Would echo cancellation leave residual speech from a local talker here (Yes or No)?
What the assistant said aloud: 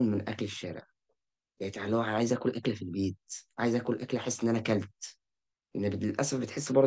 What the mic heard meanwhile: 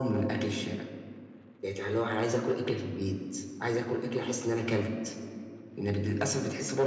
No